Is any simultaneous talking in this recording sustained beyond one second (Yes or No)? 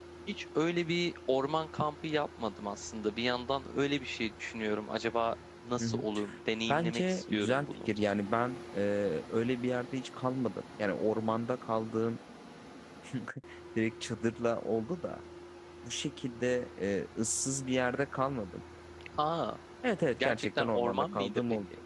Yes